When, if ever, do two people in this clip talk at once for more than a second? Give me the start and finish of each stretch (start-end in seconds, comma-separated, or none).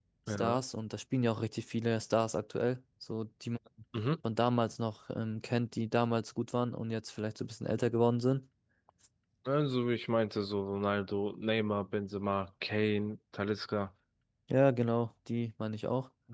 none